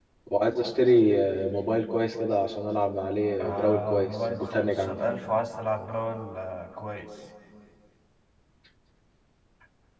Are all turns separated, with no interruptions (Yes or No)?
No